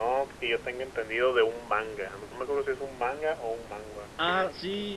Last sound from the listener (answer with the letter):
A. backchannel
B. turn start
B